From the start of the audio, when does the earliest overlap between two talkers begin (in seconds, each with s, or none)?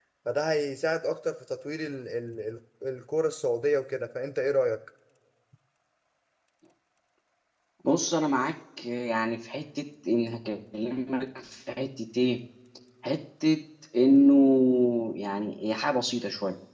none